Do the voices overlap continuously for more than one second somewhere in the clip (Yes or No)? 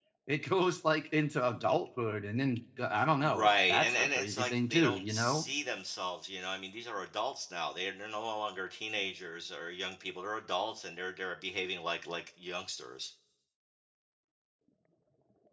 Yes